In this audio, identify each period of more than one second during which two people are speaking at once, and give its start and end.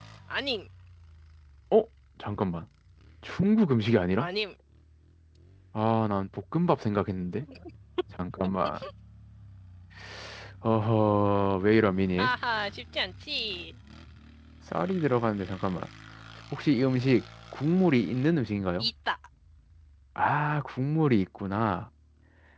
none

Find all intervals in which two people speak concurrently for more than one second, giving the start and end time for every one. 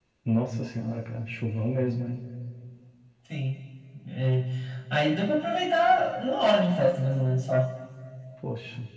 none

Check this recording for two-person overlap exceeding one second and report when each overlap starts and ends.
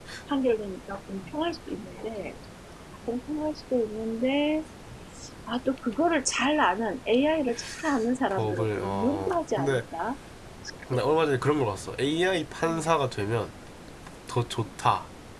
8.3-9.8

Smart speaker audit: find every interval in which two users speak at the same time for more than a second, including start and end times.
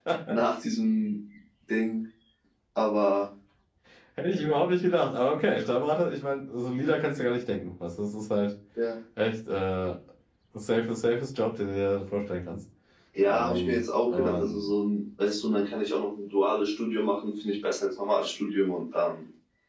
13.2-14.6

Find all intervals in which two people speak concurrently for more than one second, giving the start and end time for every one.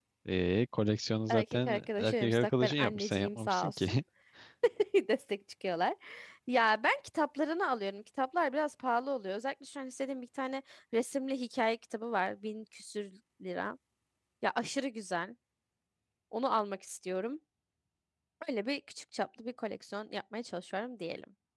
1.3-3.9

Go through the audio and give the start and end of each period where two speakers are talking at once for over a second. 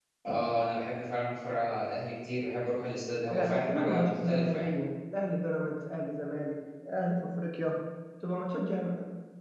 3.3-4.7

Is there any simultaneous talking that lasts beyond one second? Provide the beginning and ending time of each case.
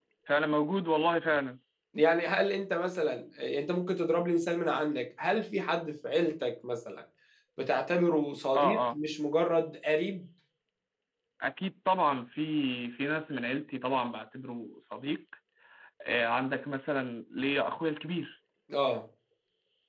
none

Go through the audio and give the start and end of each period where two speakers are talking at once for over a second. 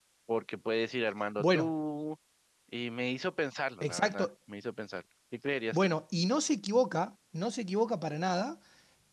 none

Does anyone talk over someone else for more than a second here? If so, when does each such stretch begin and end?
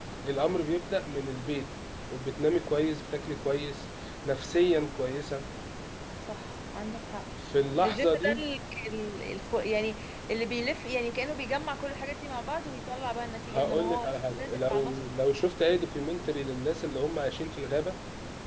13.5-15.1

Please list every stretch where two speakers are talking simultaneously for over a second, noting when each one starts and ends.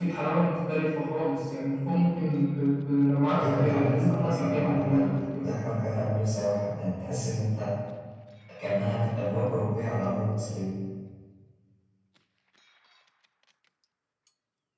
3.4-5.4

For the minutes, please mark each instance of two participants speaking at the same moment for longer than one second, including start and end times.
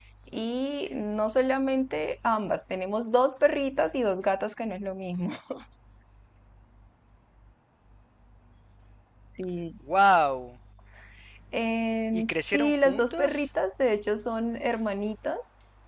12.1-13.5

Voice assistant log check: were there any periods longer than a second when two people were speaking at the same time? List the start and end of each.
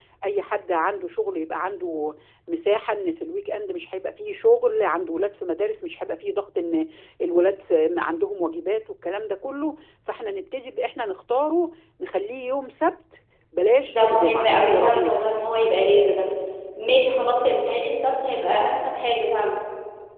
13.8-15.2

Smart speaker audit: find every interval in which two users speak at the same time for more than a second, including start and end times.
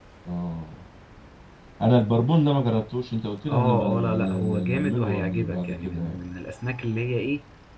3.5-6.2

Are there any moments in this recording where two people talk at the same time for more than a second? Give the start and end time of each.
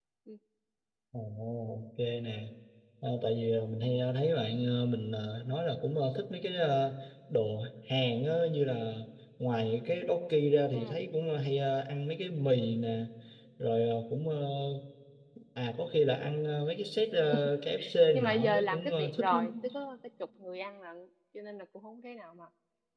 18.1-19.5

